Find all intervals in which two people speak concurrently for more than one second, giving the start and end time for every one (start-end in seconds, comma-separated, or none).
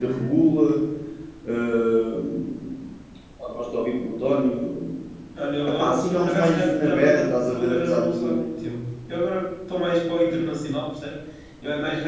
5.7-8.4